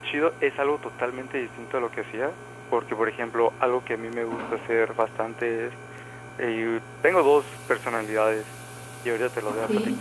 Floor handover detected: No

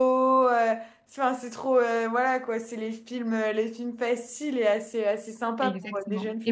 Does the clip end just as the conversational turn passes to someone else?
Yes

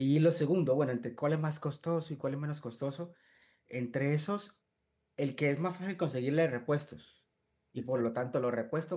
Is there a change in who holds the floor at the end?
No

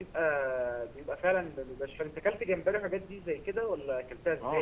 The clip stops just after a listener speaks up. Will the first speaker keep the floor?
No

